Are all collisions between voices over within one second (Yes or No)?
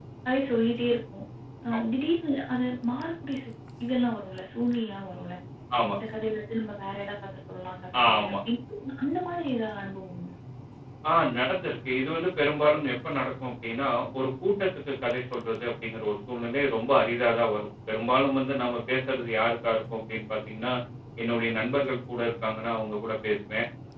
Yes